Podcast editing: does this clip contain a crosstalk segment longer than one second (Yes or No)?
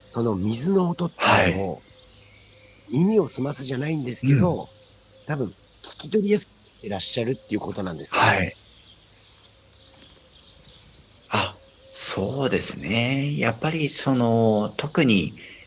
No